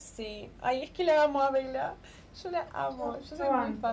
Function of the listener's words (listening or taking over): taking over